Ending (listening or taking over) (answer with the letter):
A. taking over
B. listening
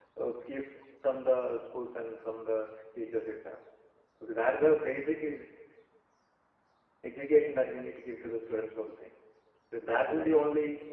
B